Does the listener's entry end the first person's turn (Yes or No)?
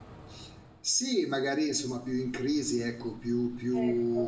No